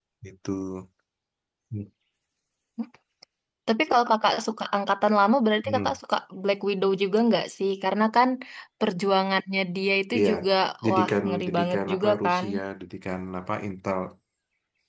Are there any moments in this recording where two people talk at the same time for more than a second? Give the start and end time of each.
10.9-12.4

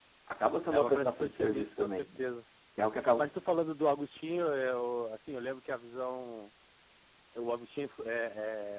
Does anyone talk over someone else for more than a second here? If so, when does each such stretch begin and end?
0.7-2.1

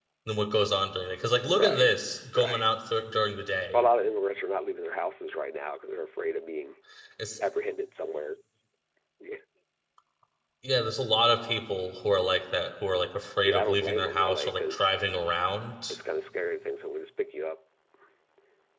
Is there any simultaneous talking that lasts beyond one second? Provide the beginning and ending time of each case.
13.4-15.1

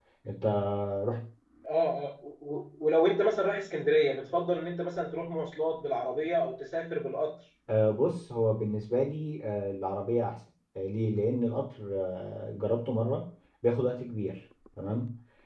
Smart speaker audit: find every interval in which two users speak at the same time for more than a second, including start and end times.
none

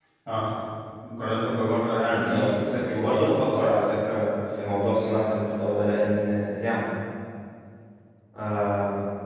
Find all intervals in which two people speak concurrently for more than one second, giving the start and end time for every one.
2.1-3.3

